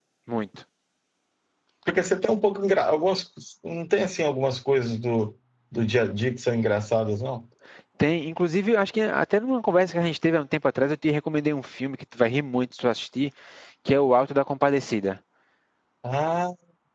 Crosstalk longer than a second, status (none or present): none